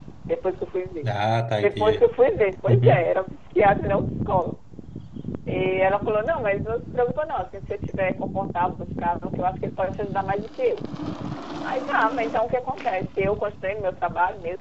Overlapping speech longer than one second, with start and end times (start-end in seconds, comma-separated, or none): none